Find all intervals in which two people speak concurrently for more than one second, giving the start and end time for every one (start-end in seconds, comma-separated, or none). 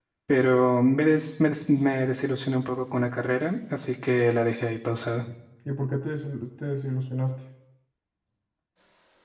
none